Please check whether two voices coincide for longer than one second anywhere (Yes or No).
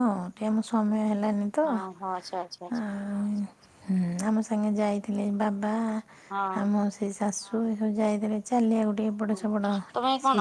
No